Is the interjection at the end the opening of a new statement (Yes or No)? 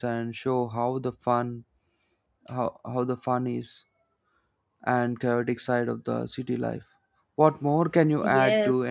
Yes